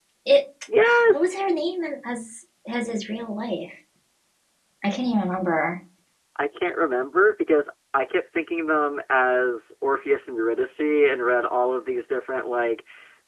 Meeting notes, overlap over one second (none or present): none